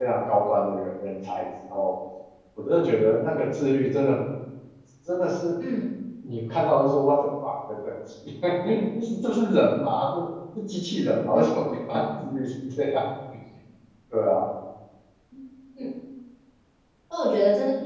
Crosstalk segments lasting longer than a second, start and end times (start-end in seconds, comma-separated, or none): none